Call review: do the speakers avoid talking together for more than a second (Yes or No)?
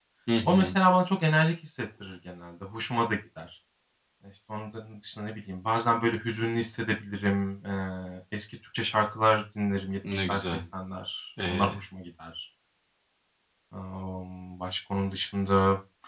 Yes